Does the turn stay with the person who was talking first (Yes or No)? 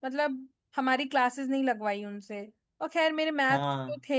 Yes